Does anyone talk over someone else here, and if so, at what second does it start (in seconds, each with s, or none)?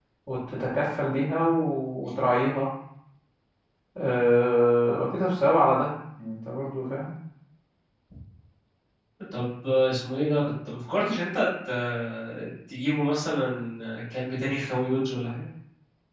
none